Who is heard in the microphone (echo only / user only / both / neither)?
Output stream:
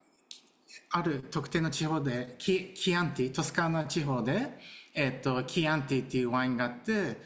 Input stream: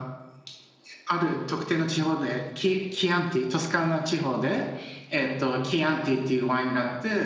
echo only